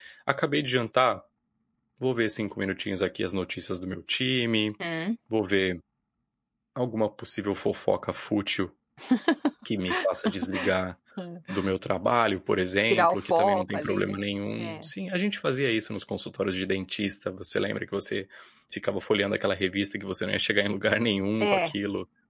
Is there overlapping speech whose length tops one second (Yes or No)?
Yes